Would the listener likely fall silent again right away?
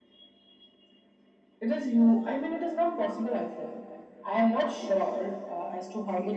No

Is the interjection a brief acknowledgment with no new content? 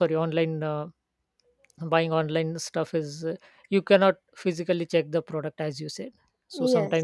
Yes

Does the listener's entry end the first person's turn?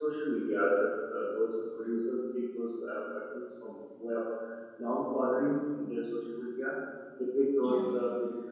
No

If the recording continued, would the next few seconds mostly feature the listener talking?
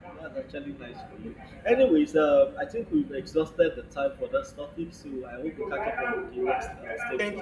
Yes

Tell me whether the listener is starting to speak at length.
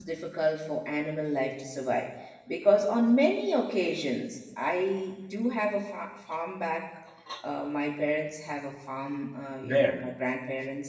No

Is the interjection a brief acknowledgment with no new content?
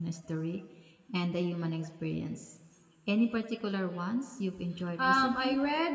No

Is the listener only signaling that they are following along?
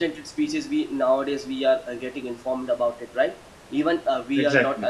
Yes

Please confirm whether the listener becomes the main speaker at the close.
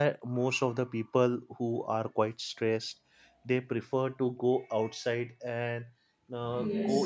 No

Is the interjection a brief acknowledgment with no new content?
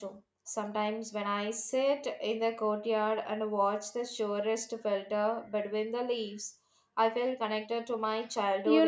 No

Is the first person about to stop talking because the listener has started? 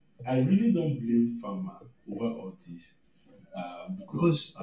Yes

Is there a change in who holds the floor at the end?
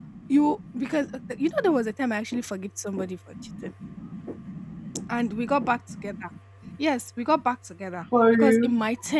No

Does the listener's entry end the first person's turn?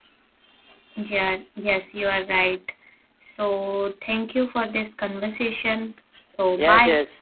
Yes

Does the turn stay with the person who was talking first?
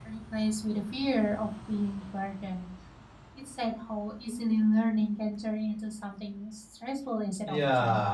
No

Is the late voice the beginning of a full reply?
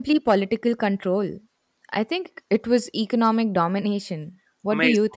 Yes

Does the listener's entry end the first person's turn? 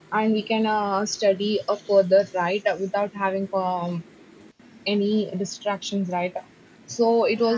No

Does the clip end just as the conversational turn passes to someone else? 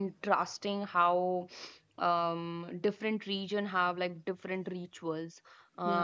No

